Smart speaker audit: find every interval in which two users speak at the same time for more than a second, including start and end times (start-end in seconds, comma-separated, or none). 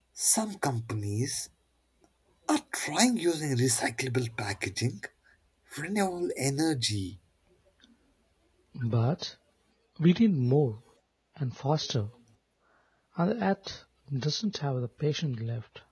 none